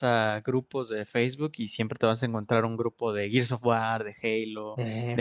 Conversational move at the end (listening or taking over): listening